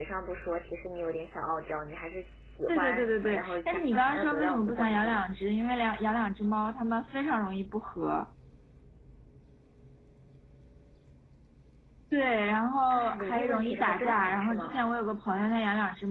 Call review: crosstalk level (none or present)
present